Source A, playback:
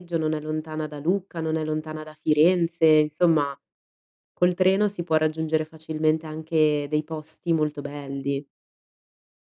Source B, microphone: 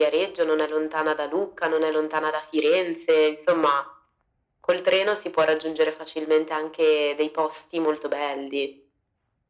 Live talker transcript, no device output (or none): none